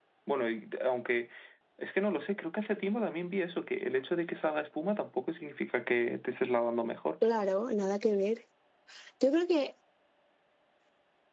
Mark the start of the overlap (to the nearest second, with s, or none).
none